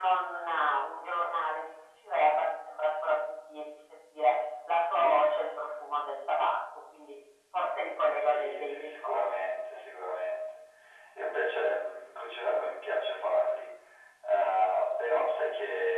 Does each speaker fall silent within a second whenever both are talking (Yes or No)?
No